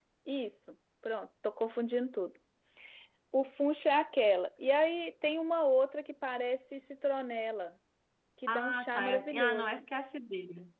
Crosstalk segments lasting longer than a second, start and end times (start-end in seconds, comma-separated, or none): 8.5-9.8